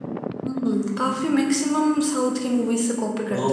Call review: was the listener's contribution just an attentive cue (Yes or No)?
No